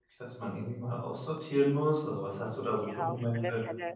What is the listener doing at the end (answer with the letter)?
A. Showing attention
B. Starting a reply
B